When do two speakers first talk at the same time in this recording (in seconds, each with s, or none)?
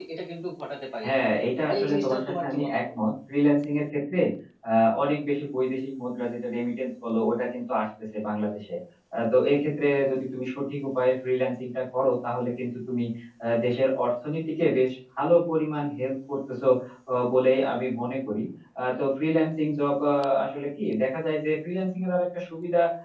1.6 s